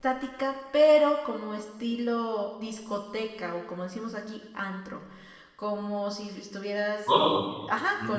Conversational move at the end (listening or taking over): taking over